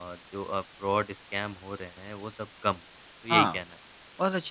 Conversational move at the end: taking over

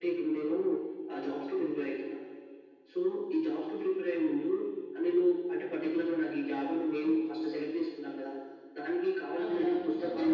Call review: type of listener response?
taking over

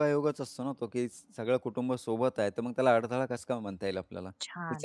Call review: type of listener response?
taking over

